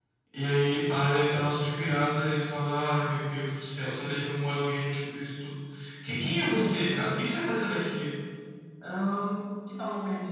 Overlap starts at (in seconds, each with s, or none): none